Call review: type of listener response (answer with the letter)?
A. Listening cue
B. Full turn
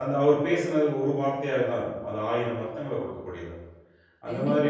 B